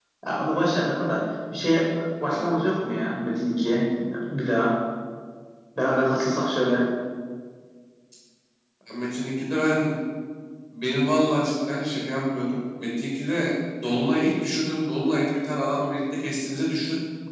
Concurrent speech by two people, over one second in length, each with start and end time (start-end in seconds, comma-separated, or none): none